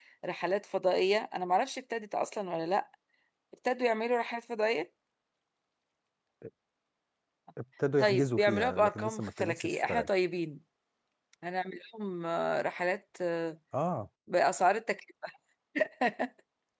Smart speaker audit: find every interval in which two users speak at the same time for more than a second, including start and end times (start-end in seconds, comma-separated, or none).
8.0-10.1